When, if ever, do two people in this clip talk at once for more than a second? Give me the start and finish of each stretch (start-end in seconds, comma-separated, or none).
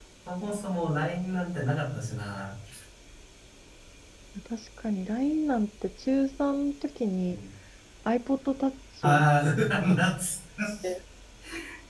none